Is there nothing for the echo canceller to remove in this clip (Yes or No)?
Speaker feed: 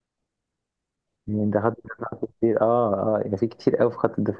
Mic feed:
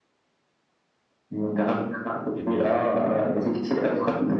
No